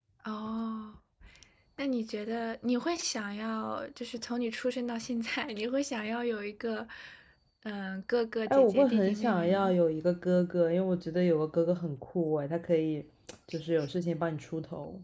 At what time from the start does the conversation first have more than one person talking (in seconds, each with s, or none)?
8.5 s